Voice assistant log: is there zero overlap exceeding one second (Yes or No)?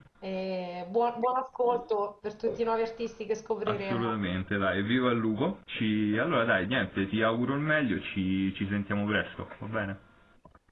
Yes